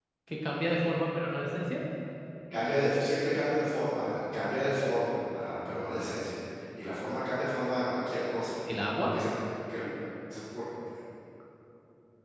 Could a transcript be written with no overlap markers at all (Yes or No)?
Yes